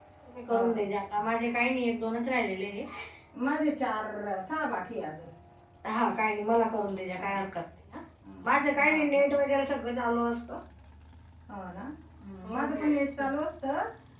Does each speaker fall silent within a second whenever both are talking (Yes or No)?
Yes